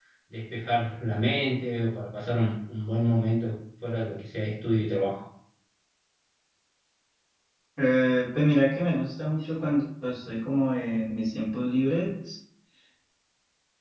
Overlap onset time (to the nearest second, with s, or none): none